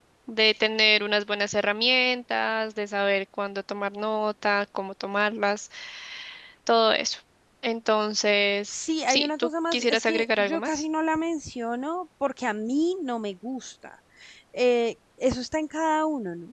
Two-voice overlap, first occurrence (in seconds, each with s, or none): 8.7 s